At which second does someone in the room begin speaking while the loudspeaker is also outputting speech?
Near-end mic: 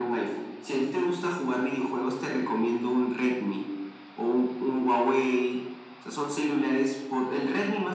none

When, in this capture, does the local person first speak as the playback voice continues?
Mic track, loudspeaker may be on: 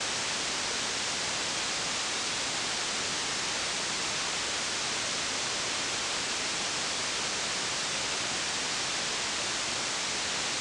none

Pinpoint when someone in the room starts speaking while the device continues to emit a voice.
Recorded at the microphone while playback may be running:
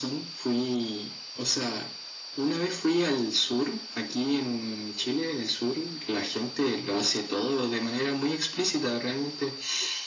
none

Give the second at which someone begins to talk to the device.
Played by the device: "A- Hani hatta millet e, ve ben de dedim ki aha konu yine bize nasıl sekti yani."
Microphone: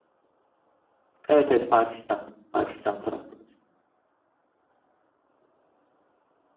1.3 s

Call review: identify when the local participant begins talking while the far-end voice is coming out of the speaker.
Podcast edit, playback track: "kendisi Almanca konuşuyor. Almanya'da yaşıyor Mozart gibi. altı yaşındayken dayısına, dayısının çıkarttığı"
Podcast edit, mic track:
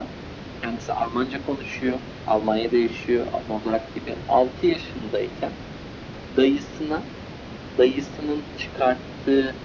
none

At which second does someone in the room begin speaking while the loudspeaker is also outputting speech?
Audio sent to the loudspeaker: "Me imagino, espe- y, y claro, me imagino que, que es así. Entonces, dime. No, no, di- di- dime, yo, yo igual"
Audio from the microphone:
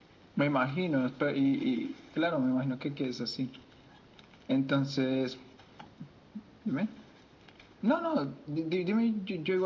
none

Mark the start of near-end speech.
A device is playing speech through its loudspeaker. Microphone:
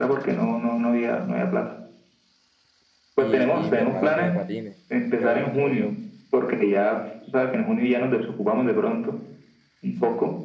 3.2 s

